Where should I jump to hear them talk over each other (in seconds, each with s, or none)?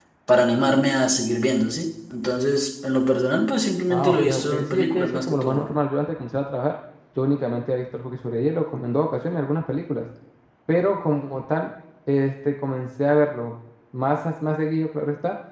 3.9 s